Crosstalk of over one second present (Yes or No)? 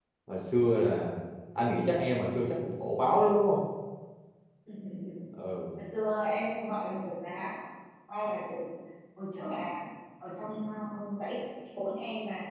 No